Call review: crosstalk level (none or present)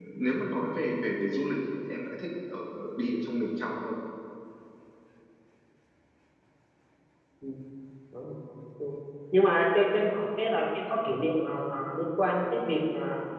none